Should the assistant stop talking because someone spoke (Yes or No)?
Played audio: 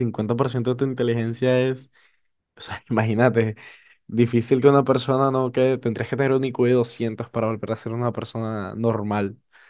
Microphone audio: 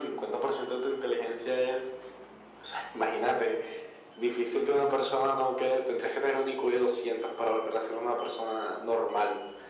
No